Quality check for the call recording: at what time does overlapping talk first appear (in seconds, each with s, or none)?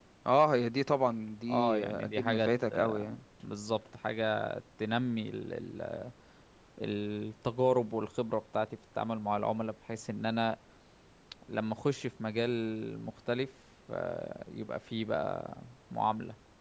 1.5 s